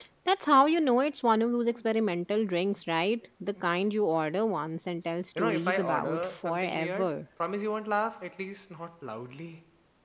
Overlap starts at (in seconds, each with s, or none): 5.4 s